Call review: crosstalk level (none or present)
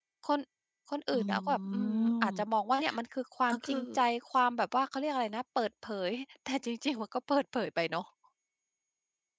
present